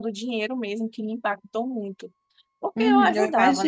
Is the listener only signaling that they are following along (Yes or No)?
No